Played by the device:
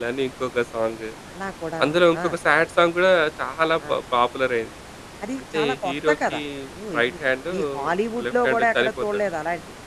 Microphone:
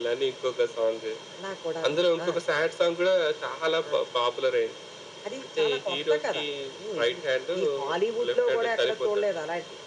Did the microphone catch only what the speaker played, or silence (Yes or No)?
Yes